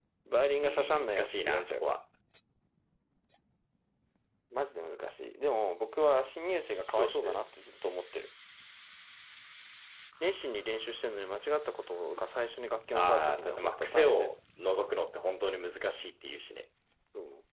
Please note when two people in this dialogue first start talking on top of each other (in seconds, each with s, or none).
0.6 s